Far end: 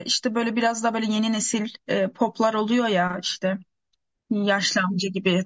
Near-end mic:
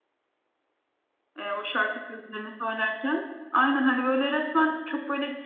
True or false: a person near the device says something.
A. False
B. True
B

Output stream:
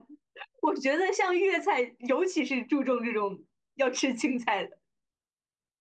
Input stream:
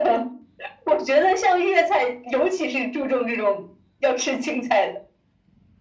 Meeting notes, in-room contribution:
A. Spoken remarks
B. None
B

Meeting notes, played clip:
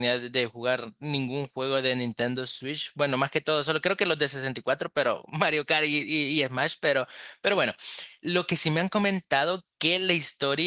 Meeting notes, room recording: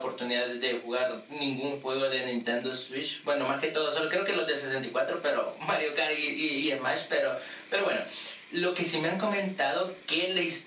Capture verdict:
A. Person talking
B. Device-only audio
B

